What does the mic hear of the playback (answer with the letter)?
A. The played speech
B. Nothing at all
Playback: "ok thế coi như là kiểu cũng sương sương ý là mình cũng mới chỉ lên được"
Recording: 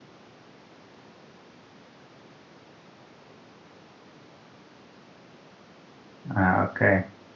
B